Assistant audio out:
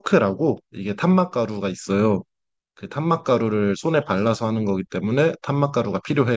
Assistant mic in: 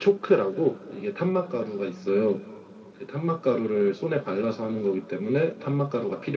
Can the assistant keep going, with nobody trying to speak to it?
Yes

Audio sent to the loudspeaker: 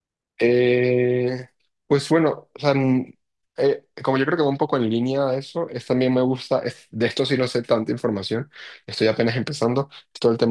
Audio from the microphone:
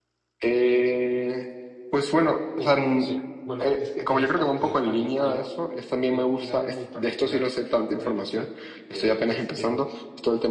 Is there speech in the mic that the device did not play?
Yes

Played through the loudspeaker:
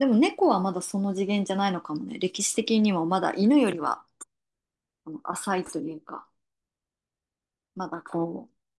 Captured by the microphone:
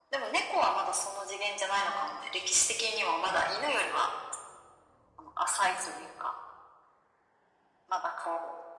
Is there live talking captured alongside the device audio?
No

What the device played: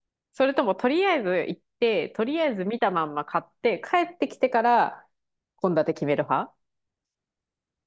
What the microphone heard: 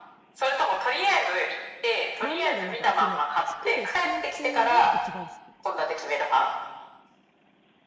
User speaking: Yes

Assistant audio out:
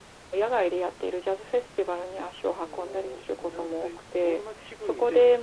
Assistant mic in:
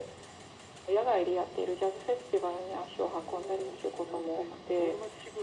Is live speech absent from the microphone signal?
Yes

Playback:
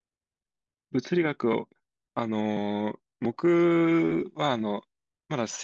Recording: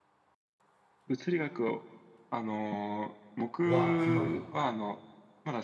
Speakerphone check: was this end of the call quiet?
No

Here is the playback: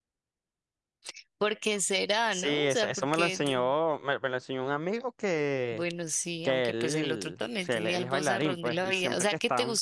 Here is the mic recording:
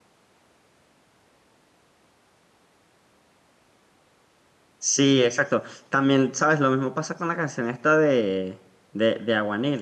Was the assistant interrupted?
Yes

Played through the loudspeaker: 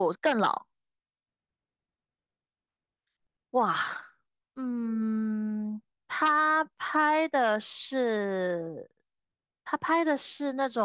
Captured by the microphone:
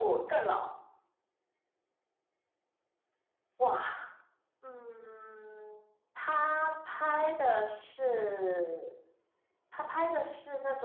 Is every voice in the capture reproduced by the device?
Yes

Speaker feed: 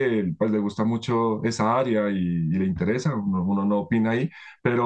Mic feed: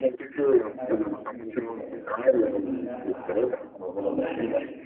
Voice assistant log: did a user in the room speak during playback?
Yes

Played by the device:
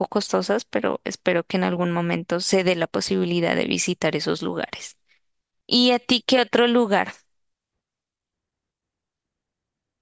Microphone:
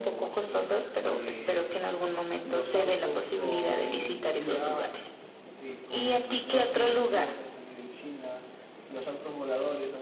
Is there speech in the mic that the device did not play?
Yes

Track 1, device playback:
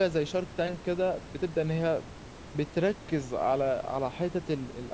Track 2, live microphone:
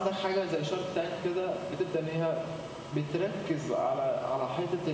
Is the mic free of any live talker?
Yes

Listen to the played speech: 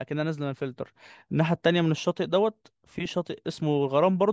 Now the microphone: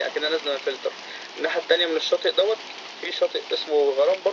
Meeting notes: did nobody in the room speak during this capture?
Yes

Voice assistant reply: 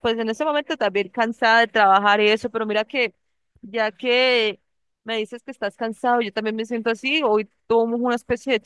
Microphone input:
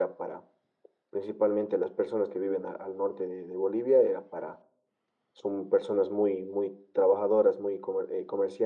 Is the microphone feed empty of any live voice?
No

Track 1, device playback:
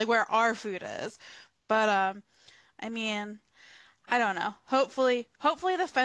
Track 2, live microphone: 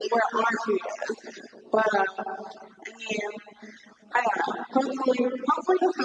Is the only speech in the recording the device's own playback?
Yes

